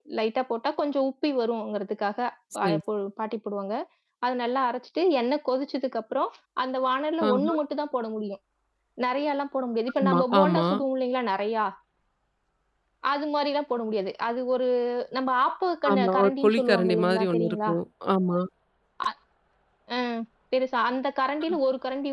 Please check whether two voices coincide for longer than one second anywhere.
Yes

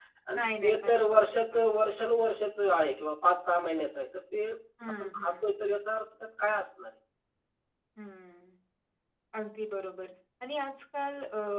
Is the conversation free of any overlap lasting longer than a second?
No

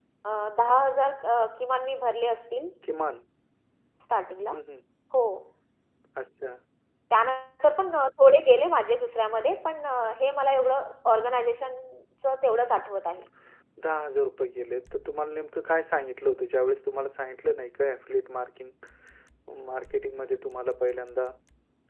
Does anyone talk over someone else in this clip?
No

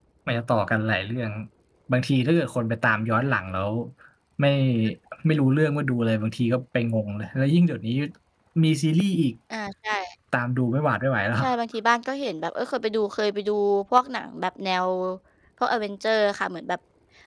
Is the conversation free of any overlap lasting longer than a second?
Yes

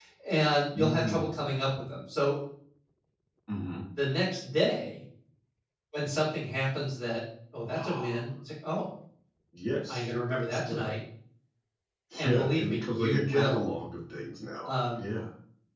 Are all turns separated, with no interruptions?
No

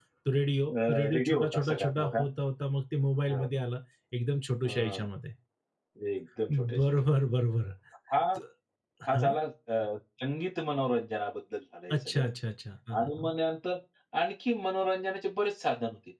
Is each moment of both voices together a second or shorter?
No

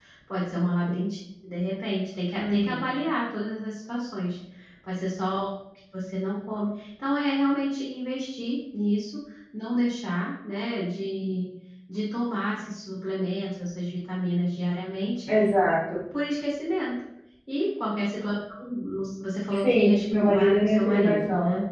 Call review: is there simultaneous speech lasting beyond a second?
Yes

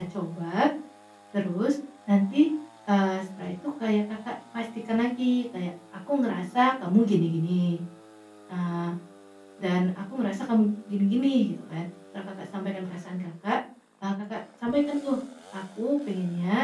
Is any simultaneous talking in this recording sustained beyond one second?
No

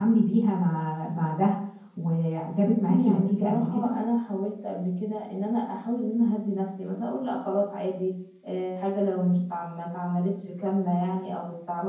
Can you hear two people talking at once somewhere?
Yes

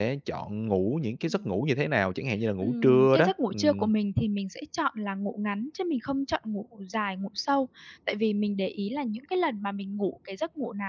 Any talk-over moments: Yes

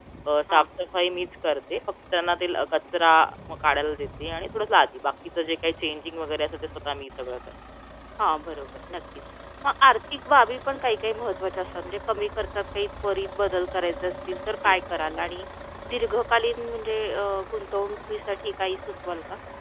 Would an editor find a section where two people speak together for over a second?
No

